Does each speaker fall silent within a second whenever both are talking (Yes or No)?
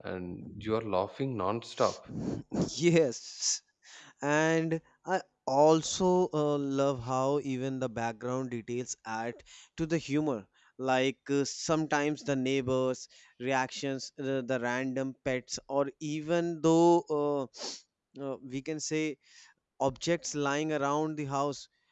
Yes